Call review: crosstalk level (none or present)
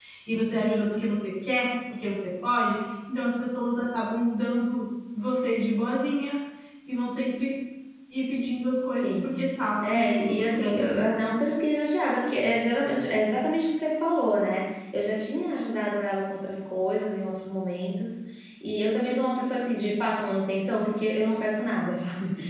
present